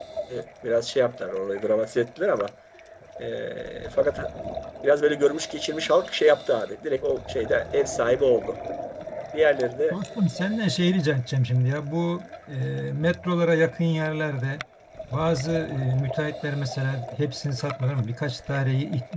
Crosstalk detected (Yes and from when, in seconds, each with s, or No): No